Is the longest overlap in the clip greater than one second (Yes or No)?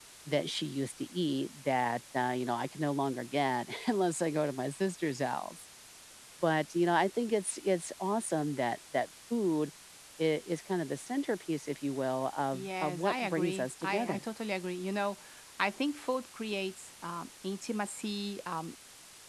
Yes